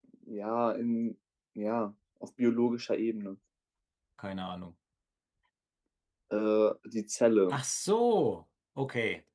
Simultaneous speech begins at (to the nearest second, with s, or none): none